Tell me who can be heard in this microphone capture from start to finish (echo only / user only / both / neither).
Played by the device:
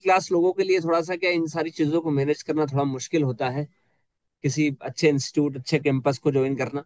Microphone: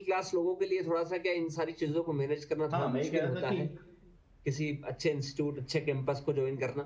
both